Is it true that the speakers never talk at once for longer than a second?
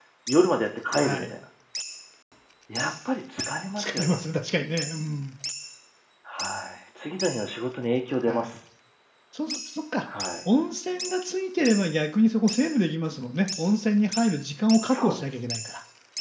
Yes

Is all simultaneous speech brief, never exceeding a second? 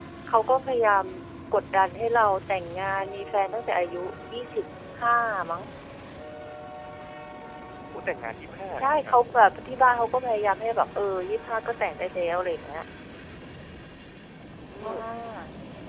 Yes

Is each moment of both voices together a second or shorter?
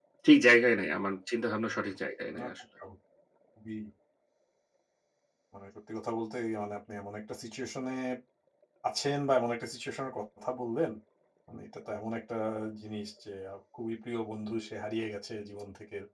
Yes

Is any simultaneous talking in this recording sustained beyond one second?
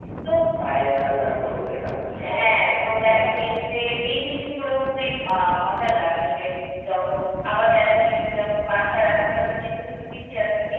No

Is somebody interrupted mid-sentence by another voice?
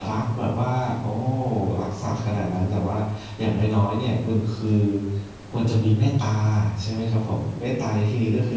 No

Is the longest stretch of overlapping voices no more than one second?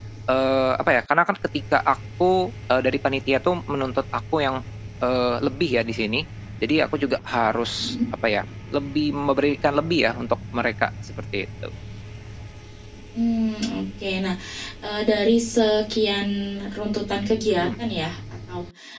Yes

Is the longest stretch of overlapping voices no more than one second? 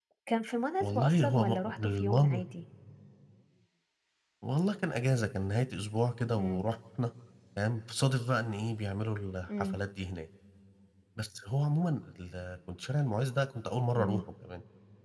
No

